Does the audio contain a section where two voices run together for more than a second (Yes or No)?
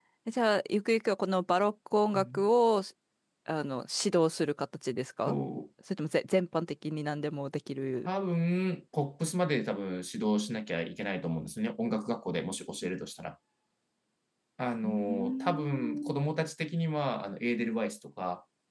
Yes